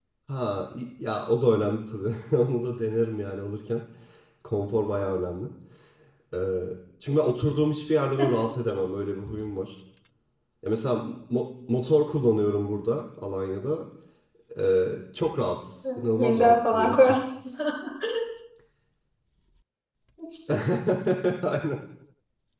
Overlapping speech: Yes, from 15.8 s

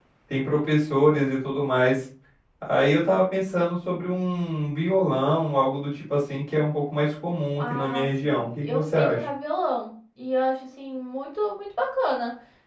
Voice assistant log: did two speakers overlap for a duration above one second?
Yes, from 7.6 s

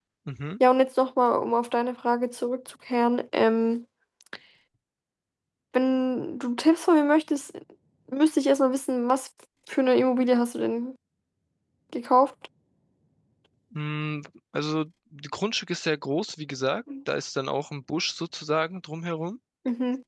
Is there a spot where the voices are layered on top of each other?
No

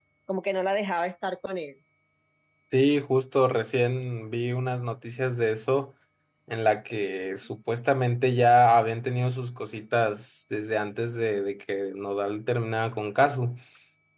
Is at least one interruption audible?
No

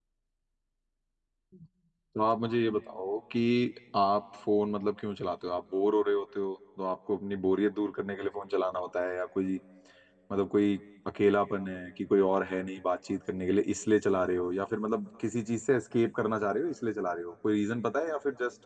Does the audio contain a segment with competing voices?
No

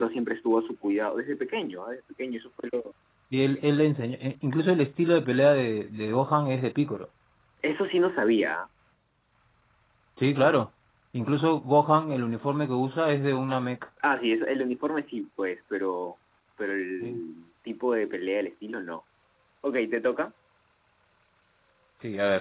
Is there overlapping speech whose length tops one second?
No

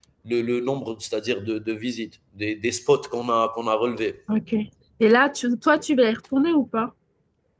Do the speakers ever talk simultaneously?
No

